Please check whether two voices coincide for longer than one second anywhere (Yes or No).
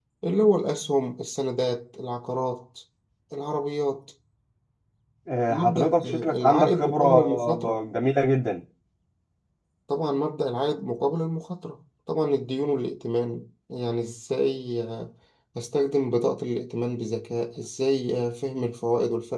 Yes